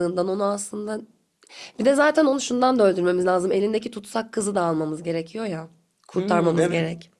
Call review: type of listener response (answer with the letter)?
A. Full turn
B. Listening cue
A